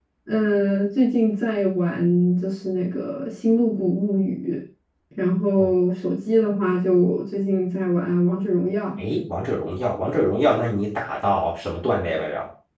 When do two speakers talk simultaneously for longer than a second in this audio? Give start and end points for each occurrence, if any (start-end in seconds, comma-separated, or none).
none